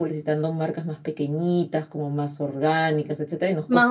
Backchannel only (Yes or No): No